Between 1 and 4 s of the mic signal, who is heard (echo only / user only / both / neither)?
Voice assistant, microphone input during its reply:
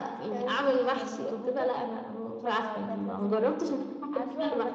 echo only